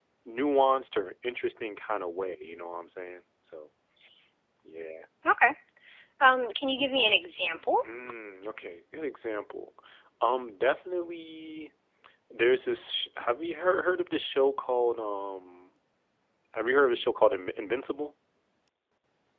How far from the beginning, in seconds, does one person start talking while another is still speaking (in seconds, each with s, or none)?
none